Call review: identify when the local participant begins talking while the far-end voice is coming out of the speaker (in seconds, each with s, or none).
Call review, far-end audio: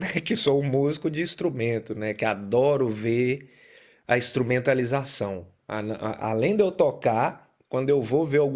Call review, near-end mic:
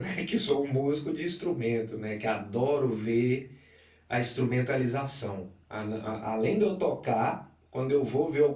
none